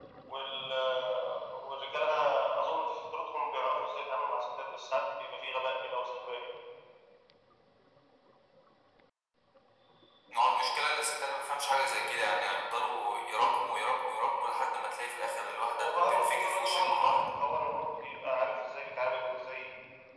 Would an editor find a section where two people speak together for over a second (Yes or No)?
Yes